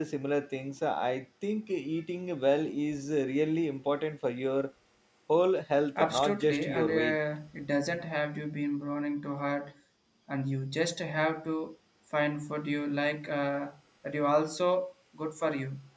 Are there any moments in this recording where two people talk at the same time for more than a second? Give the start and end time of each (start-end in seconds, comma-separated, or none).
6.0-7.2